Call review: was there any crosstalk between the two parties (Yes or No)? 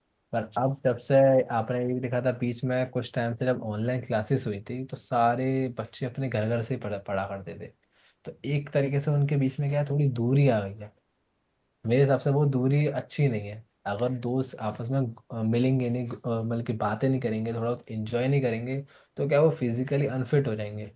No